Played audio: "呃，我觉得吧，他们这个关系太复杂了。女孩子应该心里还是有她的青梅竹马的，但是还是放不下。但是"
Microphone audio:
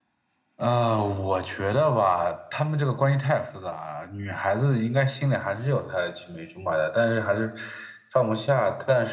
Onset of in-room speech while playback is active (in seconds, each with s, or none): none